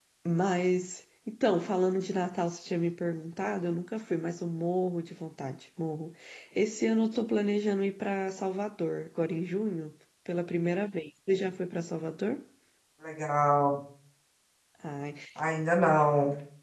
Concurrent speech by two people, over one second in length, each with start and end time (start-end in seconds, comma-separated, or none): none